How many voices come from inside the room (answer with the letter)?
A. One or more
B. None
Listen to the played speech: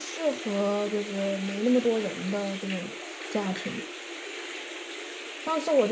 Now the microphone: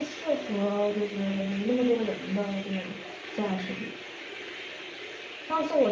B